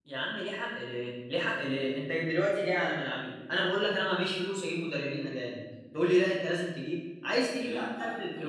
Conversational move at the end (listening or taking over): taking over